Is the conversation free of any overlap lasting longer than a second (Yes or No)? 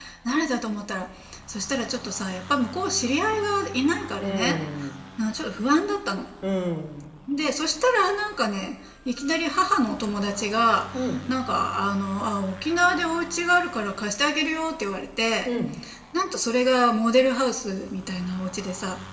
Yes